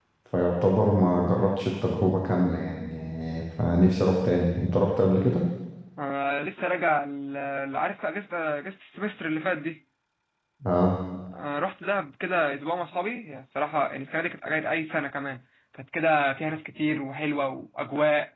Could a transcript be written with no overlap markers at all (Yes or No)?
Yes